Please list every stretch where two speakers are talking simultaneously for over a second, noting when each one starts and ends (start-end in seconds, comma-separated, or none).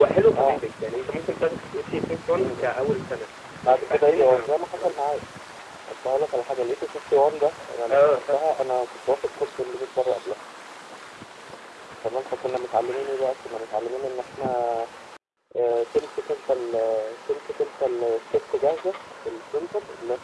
3.7-5.0